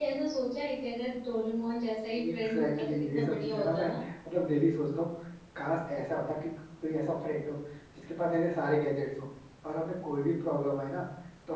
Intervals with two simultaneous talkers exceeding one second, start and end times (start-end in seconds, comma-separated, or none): 2.2-3.9